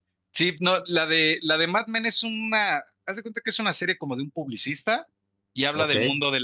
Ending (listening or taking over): listening